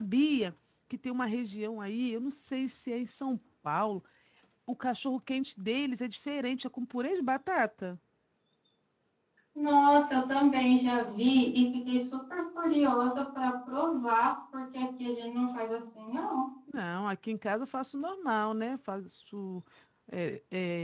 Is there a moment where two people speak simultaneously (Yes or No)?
No